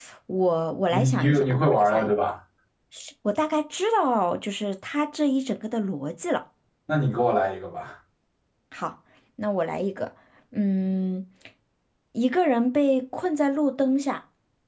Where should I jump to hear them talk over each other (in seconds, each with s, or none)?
0.9 s